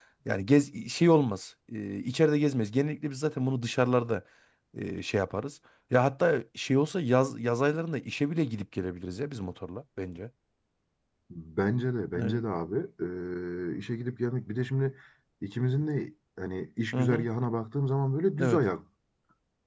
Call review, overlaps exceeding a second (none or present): none